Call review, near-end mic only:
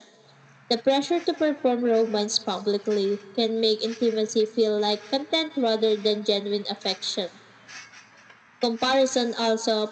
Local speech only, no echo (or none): none